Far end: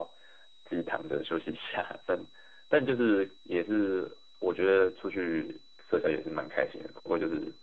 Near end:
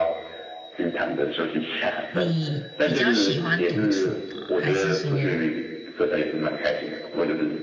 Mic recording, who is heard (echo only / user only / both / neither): both